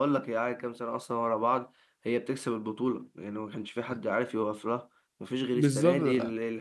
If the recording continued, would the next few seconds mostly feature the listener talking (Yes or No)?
No